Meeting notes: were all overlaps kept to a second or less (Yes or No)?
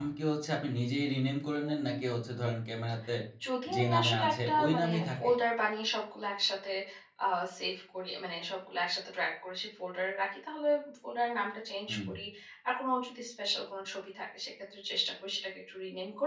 No